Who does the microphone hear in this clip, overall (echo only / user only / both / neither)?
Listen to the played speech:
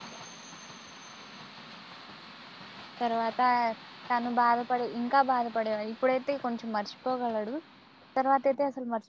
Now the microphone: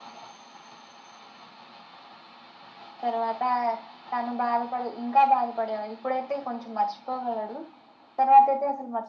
echo only